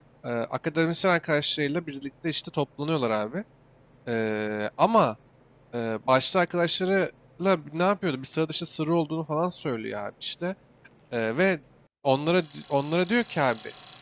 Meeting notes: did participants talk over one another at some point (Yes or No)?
No